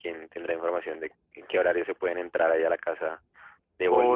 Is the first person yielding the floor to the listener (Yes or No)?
Yes